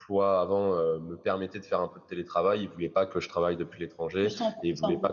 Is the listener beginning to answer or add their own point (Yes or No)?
No